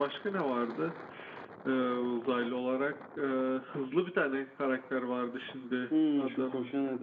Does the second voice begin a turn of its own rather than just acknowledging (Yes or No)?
Yes